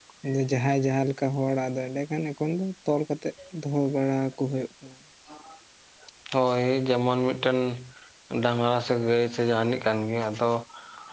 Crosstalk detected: No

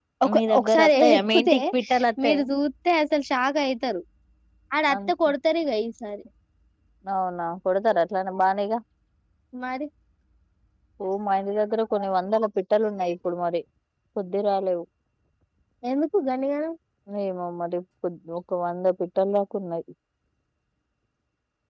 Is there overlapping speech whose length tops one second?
Yes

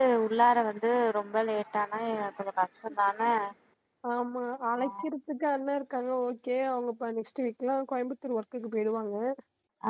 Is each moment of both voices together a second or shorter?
Yes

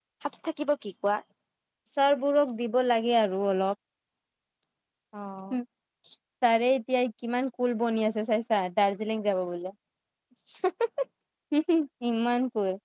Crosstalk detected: No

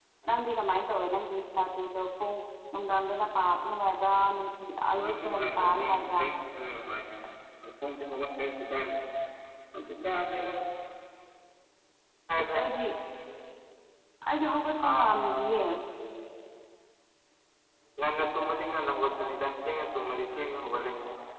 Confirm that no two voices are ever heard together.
No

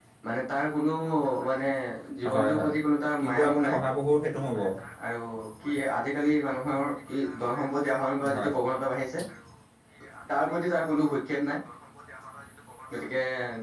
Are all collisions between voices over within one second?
Yes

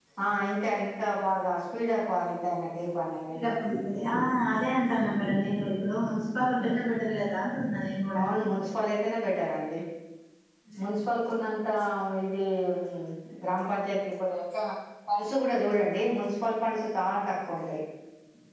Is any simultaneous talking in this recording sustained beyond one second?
No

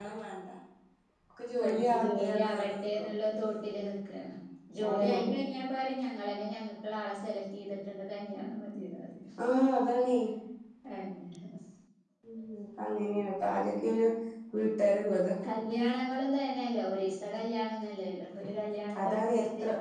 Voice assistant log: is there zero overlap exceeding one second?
No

